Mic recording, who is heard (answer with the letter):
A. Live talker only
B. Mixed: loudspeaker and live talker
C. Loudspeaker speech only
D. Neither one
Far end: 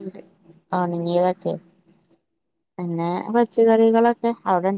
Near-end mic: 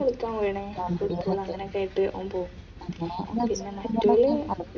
B